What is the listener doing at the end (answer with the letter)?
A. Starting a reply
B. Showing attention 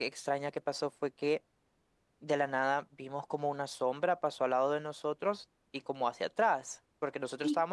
B